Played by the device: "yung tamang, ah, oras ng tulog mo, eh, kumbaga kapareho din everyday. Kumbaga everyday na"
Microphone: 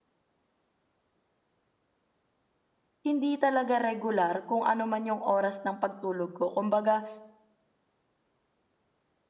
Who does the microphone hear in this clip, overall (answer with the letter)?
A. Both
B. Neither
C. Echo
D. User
D